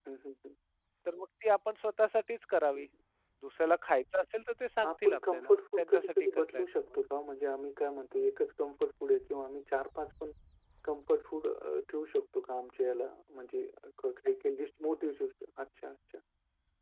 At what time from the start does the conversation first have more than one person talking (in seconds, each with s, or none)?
4.8 s